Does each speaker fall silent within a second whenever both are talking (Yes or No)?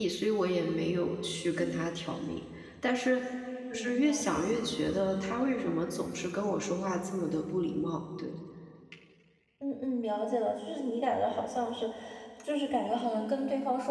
Yes